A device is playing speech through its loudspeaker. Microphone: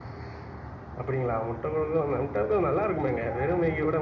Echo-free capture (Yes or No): Yes